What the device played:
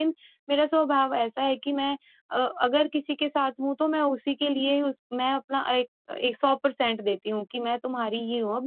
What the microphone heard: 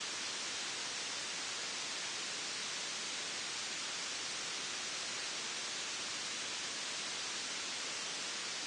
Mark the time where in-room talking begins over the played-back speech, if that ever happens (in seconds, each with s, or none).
none